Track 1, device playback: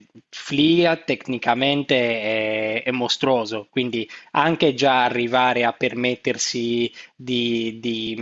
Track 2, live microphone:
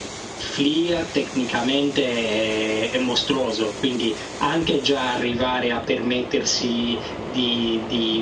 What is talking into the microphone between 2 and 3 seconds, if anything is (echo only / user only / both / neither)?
echo only